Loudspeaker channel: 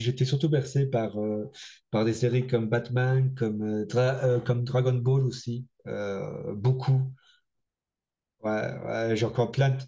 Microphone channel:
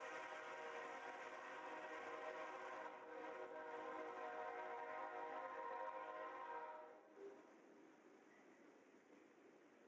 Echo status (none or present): none